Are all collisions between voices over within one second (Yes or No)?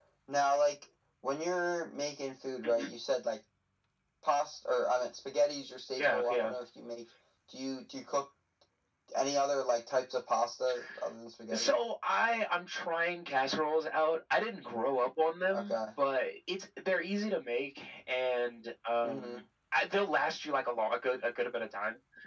Yes